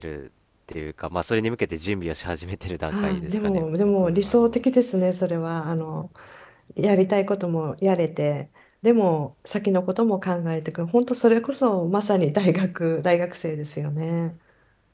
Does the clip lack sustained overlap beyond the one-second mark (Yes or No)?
No